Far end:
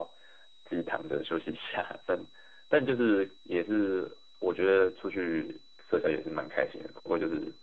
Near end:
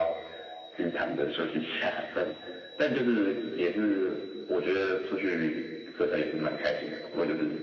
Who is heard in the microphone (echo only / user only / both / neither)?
echo only